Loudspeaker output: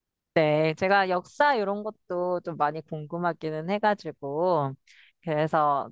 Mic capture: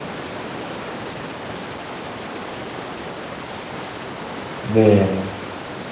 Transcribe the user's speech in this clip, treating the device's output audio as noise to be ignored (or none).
네.